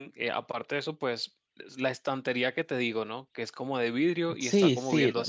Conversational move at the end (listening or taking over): taking over